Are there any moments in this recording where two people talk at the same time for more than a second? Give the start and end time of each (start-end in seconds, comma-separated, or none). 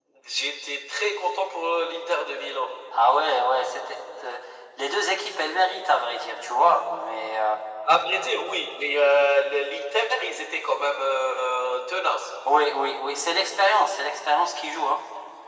none